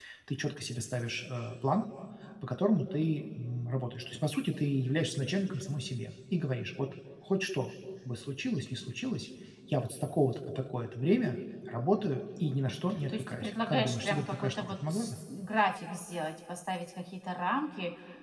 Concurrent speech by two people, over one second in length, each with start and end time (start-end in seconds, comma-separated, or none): 13.1-15.2